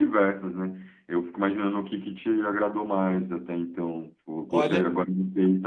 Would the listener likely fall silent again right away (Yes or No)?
Yes